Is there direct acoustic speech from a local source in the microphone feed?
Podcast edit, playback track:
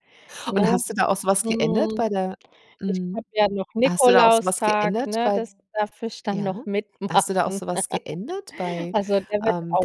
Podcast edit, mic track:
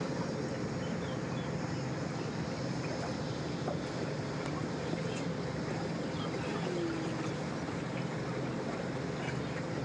No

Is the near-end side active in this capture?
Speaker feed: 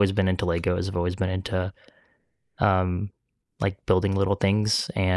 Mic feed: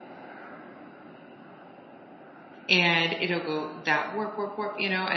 Yes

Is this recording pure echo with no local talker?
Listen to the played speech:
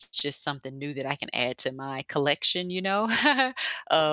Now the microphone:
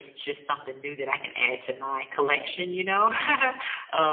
No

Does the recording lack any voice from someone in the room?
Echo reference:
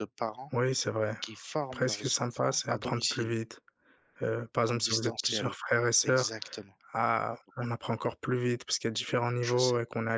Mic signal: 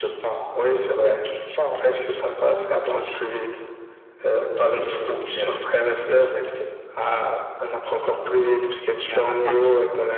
No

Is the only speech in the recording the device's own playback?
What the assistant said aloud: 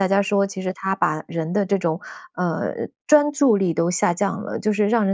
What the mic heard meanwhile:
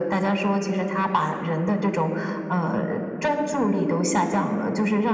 Yes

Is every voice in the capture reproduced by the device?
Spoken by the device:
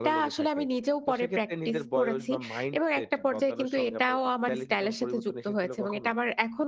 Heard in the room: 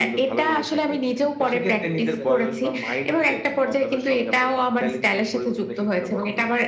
No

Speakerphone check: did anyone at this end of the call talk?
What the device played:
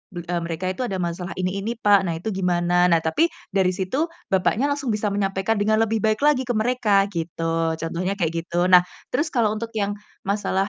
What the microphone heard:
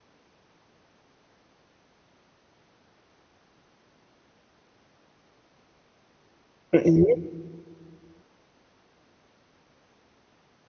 Yes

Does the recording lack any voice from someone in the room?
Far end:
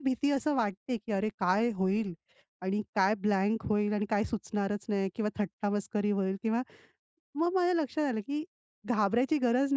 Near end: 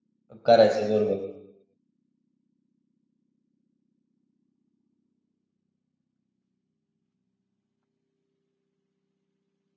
No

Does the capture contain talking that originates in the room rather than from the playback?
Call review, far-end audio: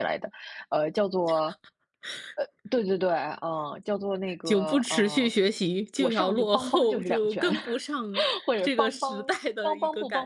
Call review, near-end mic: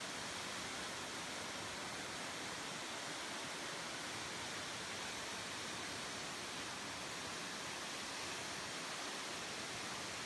No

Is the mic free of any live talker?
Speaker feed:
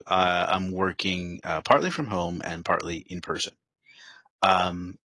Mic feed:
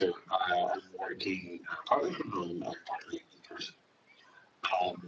Yes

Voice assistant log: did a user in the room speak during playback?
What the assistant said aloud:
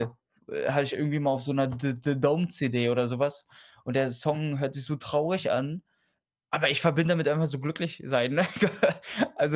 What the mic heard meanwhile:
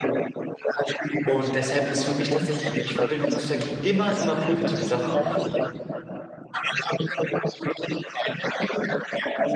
Yes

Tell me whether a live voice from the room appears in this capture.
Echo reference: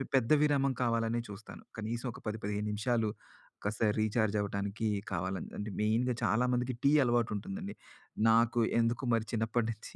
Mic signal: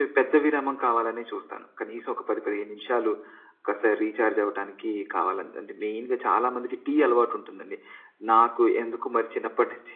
No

